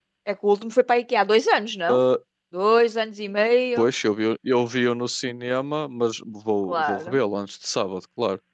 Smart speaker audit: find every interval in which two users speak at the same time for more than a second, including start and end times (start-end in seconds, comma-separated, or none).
none